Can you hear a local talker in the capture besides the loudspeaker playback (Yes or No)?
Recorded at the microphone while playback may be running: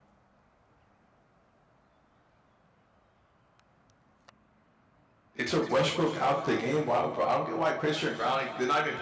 Yes